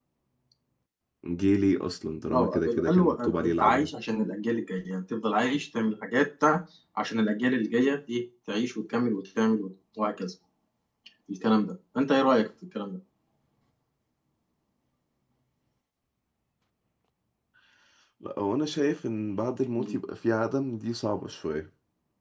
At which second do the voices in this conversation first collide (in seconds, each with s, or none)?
2.3 s